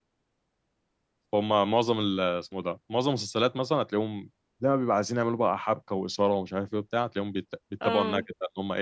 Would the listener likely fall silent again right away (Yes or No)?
Yes